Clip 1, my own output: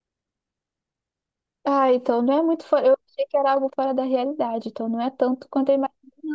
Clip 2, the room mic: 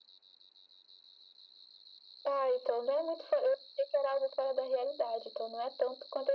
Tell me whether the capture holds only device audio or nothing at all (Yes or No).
Yes